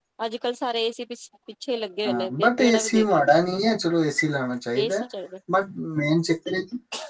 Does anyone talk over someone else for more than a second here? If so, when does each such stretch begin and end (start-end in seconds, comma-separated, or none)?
2.0-3.3